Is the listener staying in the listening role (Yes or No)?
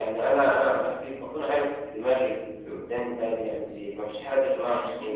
Yes